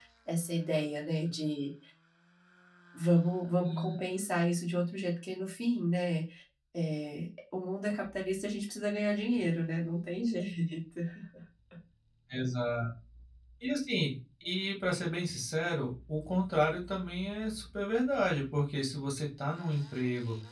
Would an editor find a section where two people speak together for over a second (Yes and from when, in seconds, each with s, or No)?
No